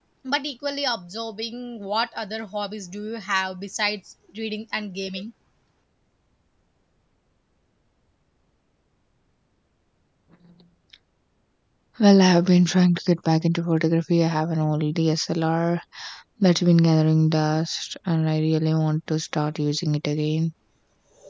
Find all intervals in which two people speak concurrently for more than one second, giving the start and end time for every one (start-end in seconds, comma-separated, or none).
none